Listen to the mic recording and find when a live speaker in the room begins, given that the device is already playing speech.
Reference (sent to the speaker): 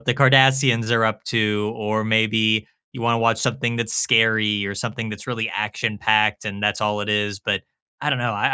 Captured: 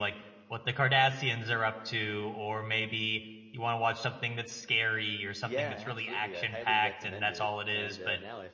5.4 s

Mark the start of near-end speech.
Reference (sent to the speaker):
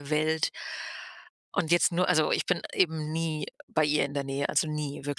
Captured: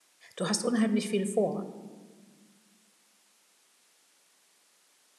0.3 s

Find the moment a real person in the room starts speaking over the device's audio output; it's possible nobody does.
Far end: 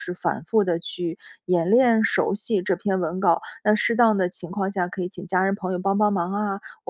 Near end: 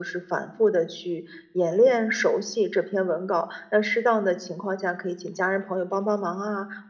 none

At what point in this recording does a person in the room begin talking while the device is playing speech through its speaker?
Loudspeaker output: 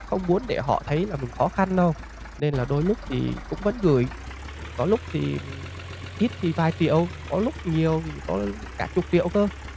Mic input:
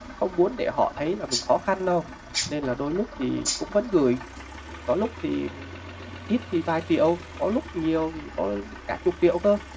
none

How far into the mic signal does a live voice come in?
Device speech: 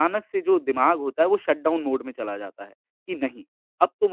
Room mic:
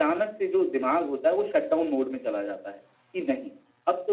none

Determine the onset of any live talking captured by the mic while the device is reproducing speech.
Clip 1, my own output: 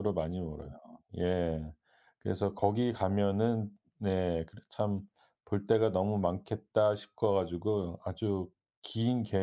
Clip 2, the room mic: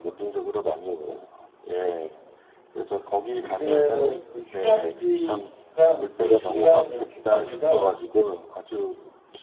3.4 s

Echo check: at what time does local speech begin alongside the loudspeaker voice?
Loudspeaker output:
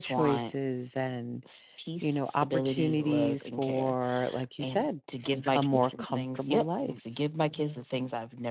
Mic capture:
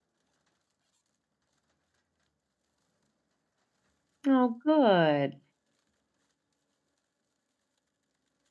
4.3 s

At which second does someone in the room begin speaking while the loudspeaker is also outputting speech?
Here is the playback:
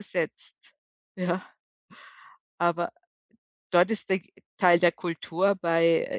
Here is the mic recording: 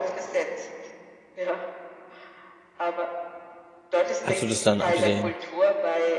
4.2 s

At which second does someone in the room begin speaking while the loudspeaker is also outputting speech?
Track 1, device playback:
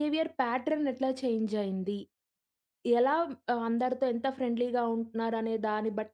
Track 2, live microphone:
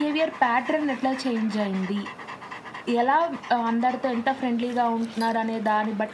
none

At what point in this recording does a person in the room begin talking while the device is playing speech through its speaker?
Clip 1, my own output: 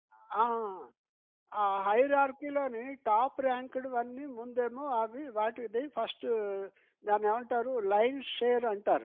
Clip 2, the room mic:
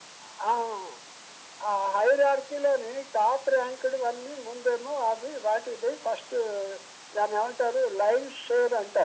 none

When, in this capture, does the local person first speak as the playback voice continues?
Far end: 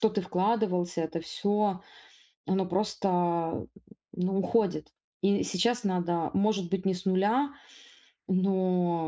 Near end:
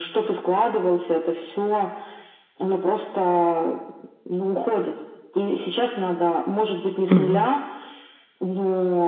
7.1 s

